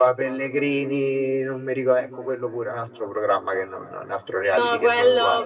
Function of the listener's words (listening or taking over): taking over